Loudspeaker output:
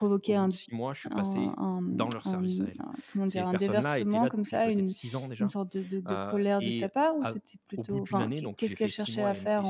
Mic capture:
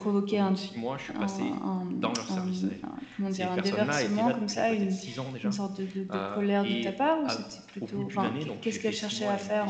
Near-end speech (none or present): none